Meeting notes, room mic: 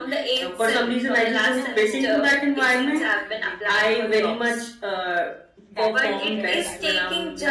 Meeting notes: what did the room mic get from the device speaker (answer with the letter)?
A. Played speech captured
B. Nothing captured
A